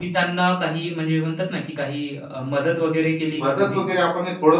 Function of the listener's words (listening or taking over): taking over